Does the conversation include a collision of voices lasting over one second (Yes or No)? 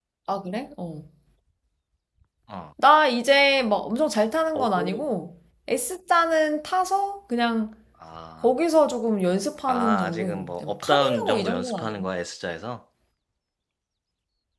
Yes